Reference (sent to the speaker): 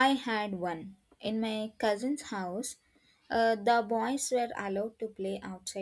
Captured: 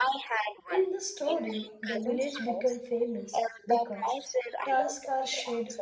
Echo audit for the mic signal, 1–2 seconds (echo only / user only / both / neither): both